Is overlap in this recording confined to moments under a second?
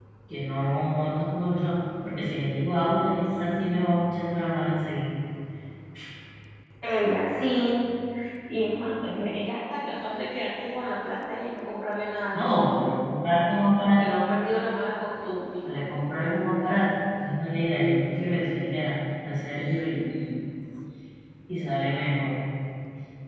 Yes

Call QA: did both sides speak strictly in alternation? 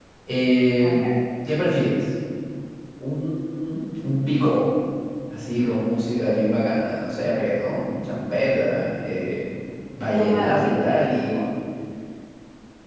No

